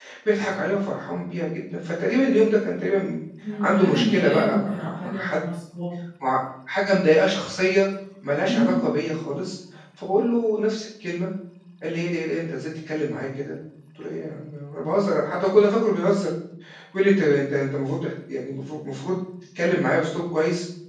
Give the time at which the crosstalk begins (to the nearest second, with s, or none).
4 s